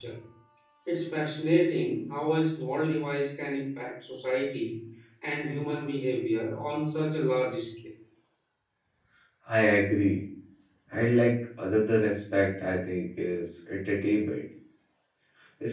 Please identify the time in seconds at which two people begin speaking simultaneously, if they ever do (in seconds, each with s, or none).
none